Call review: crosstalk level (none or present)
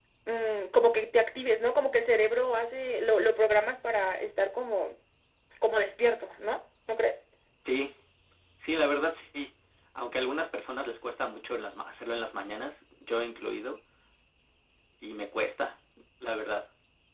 none